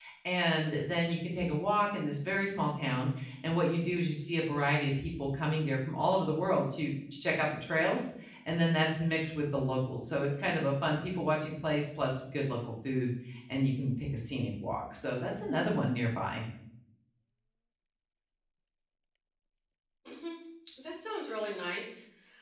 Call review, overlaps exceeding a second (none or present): none